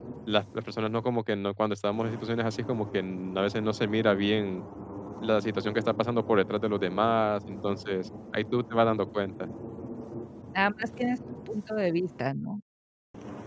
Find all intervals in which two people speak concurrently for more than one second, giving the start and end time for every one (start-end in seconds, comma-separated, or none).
none